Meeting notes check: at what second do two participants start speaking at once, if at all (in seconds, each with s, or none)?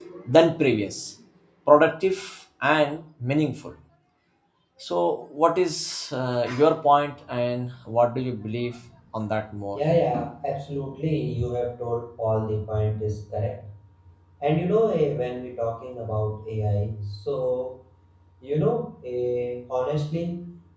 none